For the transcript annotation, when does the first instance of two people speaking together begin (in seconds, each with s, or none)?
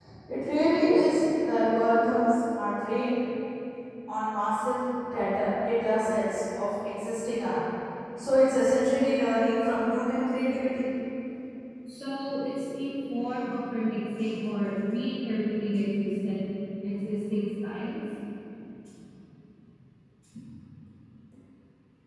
none